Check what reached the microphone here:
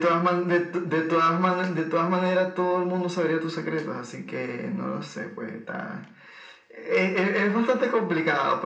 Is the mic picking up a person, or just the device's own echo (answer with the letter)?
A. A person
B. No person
B